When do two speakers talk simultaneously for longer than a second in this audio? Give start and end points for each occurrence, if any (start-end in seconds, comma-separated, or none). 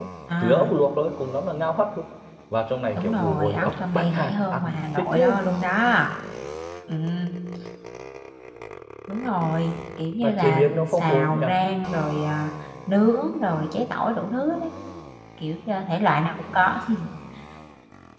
3.0-5.3, 10.2-11.5